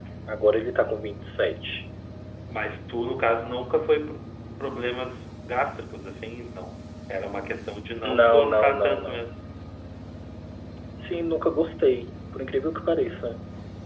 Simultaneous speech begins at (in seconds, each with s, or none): 8.0 s